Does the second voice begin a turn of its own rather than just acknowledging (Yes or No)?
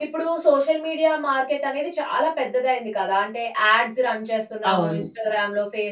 No